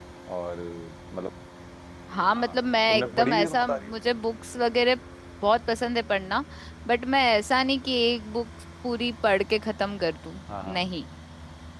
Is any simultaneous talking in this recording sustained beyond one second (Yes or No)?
Yes